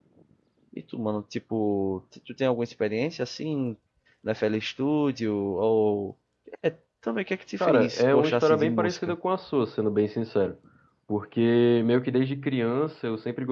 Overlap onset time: 8 s

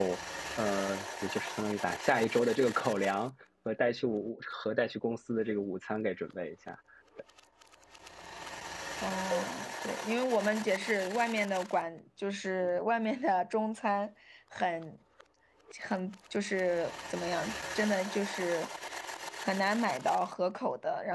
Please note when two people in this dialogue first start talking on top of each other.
none

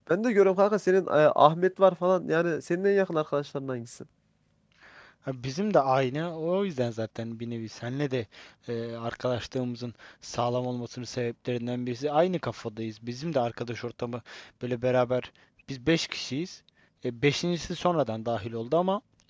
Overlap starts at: none

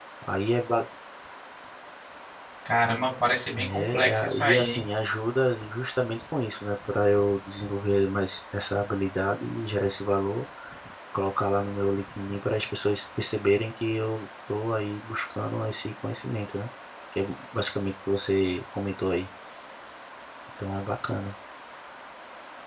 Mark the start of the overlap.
4 s

